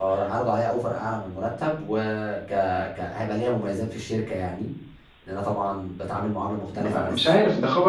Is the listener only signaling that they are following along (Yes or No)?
No